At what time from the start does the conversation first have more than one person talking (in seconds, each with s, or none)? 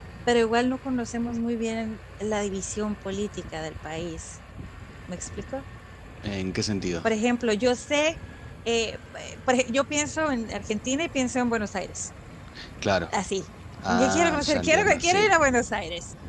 13.9 s